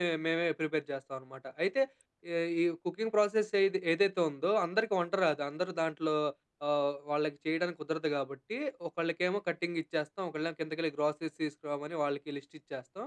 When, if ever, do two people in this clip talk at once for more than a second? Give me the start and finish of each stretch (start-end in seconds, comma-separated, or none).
none